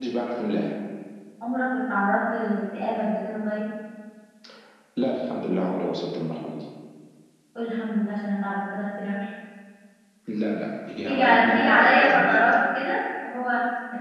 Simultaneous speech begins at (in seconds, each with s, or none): 11.0 s